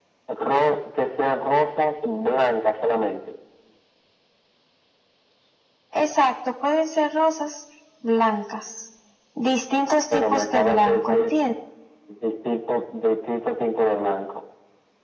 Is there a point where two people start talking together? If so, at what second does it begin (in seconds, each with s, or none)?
10.1 s